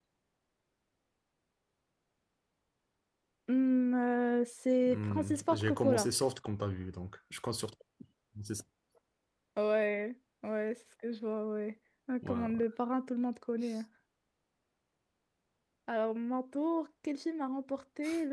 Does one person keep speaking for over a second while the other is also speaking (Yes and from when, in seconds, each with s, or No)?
Yes, from 4.9 s